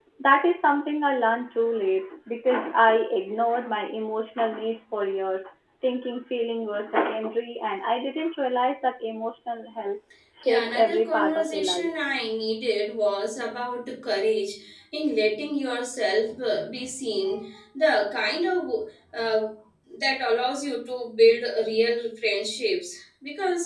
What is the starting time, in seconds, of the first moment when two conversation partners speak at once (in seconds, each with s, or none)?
10.4 s